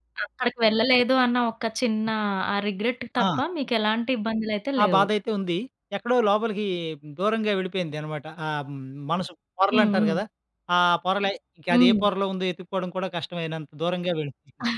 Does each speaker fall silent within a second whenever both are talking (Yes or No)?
Yes